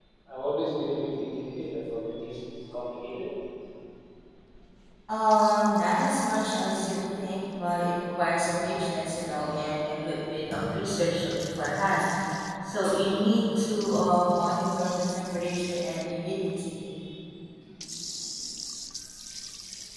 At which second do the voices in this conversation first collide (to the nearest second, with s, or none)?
none